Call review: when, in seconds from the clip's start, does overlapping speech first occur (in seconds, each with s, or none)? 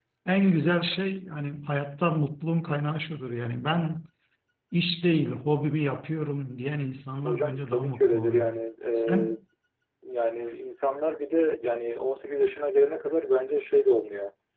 7.2 s